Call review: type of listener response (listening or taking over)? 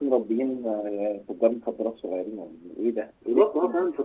taking over